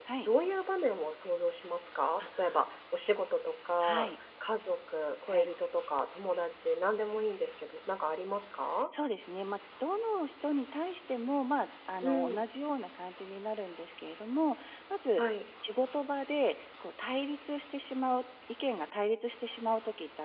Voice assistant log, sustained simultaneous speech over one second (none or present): none